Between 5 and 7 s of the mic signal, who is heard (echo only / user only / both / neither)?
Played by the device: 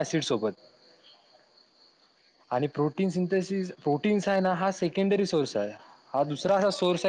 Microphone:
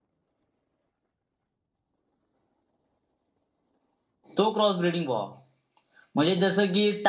user only